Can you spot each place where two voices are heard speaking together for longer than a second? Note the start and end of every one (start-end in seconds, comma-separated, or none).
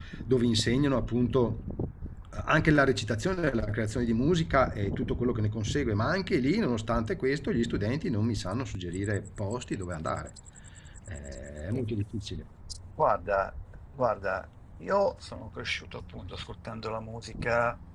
none